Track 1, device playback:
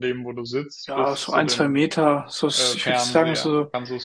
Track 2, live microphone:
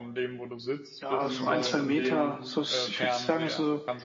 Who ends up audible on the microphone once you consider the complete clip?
both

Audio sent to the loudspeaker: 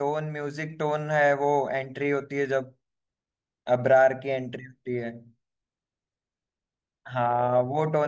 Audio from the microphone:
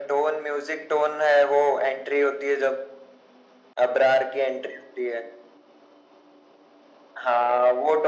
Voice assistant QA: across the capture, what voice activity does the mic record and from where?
echo only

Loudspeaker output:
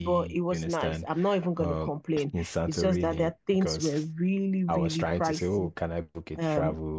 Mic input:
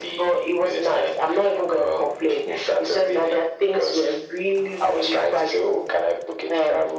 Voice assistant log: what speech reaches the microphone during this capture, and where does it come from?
echo only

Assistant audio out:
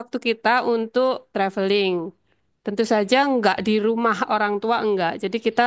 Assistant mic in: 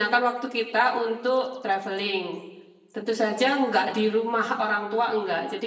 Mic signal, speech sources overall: echo only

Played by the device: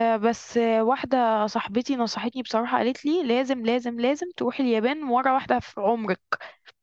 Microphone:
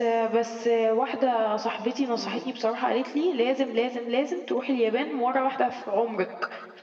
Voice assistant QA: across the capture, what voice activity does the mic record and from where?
both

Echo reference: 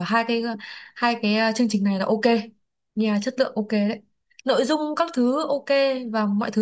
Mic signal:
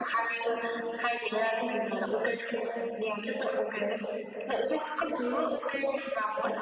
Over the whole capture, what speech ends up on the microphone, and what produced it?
echo only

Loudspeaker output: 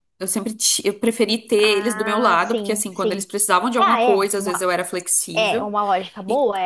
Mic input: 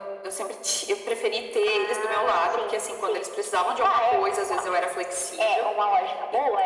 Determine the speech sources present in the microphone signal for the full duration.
echo only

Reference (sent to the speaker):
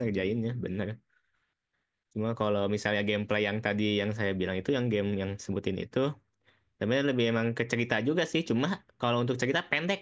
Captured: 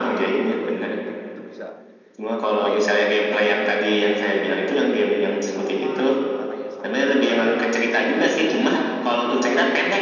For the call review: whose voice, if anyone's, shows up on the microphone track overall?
both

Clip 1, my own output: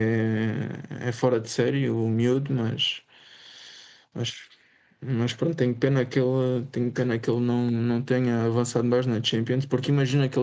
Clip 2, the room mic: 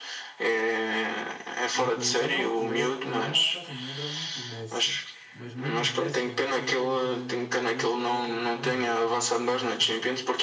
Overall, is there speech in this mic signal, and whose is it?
both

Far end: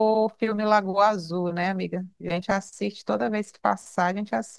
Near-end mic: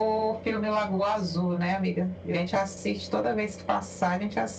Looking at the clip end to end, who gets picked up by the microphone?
echo only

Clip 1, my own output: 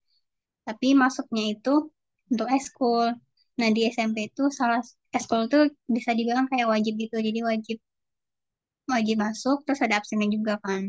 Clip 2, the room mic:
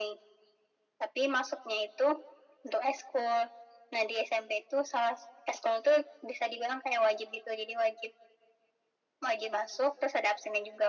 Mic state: echo only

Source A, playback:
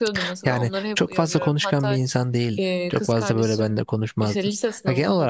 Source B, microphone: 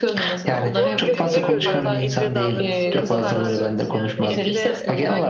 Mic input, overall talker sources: both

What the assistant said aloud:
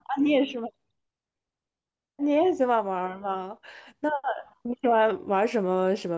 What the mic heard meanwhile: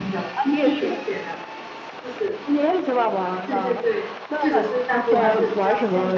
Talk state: both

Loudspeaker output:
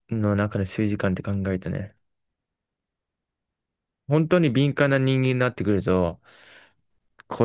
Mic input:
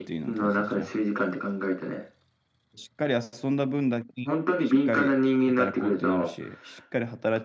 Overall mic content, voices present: both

